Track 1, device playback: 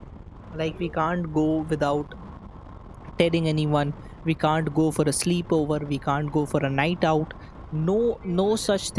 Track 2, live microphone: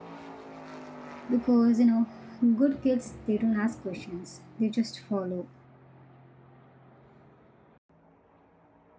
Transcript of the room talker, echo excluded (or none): because you know, good kids they don't ask questions, they just follow.